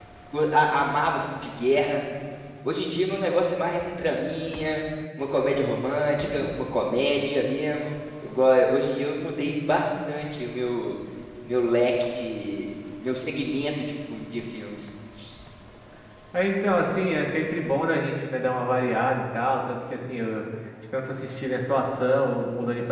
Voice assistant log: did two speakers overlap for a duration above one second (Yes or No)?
No